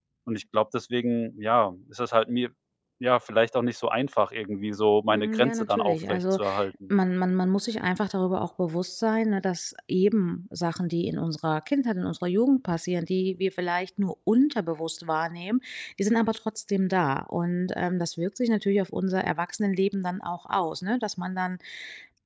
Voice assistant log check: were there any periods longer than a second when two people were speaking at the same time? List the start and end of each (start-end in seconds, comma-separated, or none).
5.1-6.4